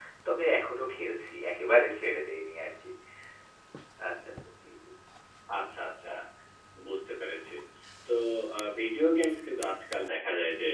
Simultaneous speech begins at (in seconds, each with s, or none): none